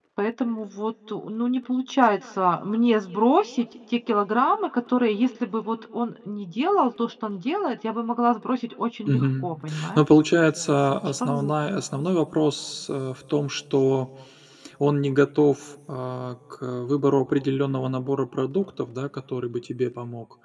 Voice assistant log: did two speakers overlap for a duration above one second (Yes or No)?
No